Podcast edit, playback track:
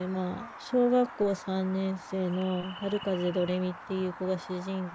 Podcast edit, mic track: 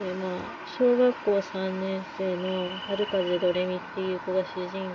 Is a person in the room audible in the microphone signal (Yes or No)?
No